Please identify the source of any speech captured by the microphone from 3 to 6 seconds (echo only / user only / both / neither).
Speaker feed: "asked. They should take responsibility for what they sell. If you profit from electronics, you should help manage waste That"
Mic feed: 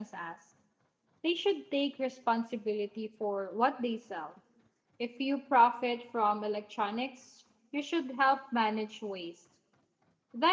echo only